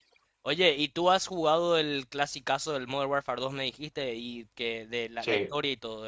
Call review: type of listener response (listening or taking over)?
listening